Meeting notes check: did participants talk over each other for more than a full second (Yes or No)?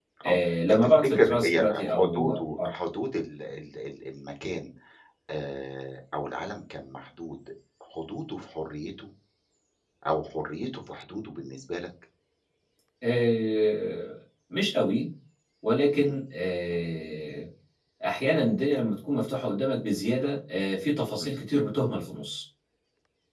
Yes